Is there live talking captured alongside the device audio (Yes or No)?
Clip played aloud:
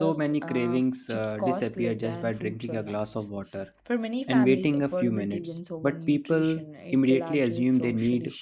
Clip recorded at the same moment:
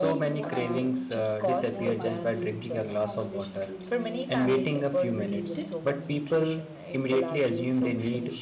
Yes